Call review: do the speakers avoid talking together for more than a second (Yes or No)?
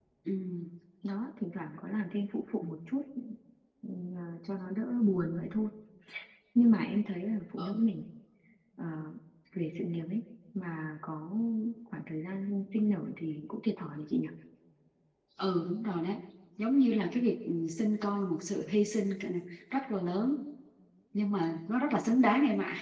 Yes